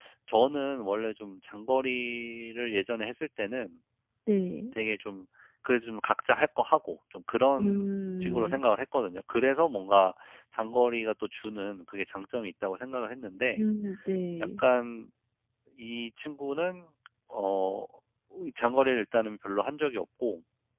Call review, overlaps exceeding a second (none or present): none